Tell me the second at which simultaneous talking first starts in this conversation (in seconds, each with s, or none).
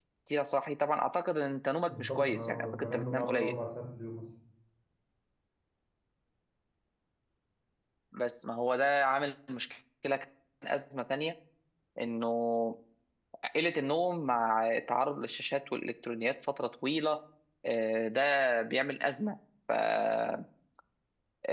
1.9 s